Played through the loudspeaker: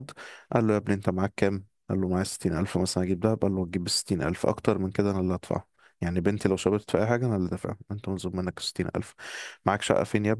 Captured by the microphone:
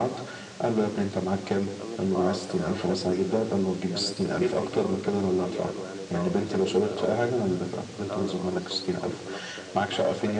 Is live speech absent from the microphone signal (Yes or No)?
No